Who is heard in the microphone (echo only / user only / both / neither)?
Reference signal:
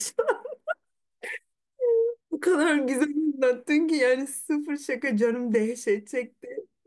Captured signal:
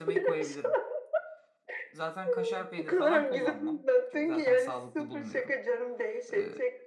both